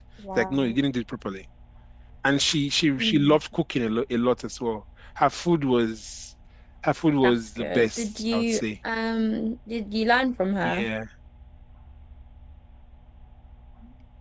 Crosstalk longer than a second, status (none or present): present